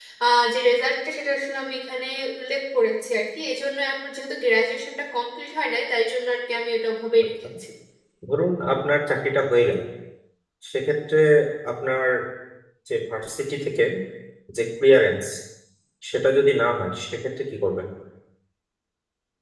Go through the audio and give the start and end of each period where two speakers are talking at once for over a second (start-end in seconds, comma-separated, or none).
none